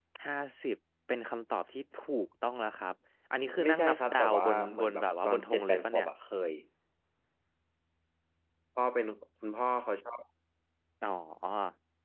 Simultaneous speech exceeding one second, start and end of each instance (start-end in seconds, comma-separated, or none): 3.6-6.1